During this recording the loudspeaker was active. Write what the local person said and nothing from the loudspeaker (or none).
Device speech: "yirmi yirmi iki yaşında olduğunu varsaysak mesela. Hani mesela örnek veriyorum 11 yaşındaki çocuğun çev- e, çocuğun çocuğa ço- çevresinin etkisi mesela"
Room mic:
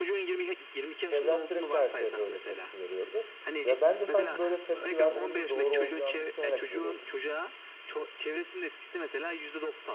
Çevrem sürekli her şeye böyle tepki veriyordu. Ve ben de sanki böyle tepki vermemin doğru olacağını düşünerek veriyordum.